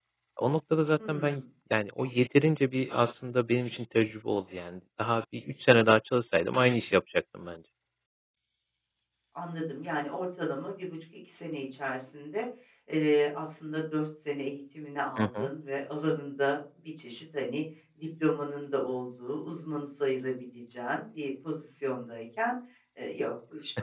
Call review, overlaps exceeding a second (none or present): none